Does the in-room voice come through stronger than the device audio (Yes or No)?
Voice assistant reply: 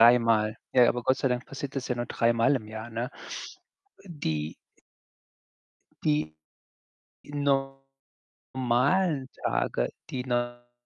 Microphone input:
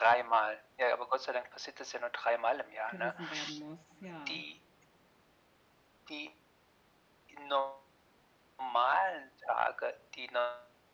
No